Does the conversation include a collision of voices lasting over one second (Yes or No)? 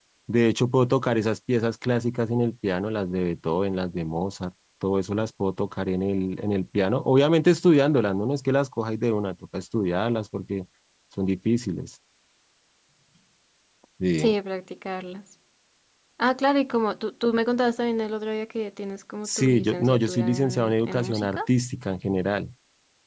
Yes